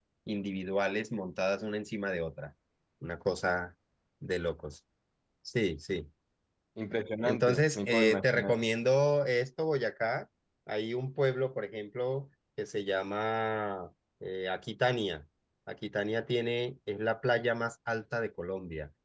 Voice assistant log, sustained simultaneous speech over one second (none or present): present